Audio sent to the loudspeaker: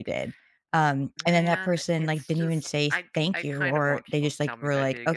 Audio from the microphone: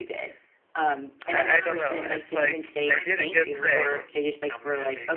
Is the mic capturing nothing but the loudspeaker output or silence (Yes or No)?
No